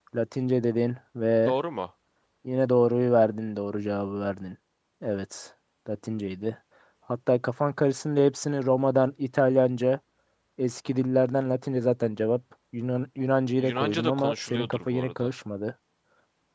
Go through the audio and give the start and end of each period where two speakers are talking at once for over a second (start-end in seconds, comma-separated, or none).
13.6-15.3